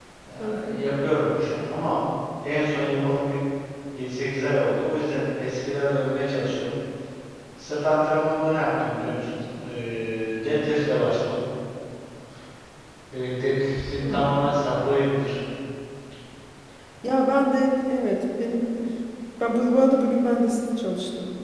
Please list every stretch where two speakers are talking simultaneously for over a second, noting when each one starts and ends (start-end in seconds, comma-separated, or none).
none